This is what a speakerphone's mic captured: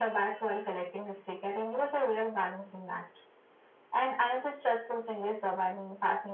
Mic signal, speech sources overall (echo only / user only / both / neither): echo only